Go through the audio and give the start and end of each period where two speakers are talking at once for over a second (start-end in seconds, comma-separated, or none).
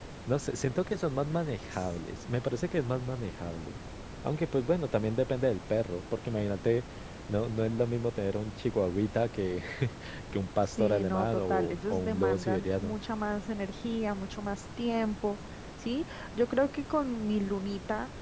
10.8-13.0